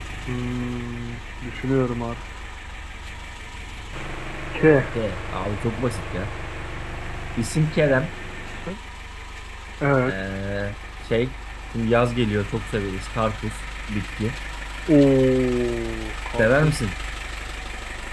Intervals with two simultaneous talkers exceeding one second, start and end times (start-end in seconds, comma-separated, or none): none